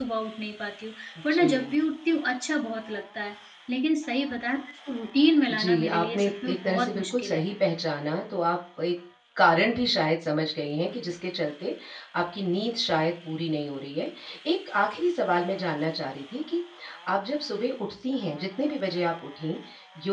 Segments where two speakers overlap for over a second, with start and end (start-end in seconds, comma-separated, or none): 5.5-7.4